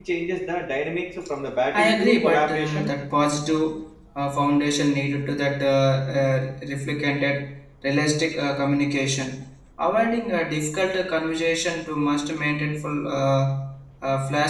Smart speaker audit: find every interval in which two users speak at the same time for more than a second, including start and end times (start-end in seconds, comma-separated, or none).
1.7-3.0